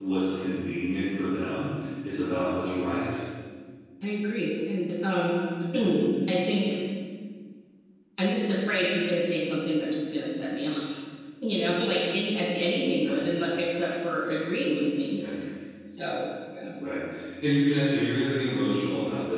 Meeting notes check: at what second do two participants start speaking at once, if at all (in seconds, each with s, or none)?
none